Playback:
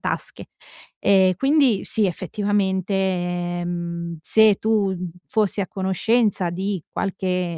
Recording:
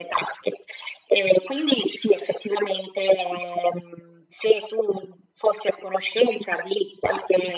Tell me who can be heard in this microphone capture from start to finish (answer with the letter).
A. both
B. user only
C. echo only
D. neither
C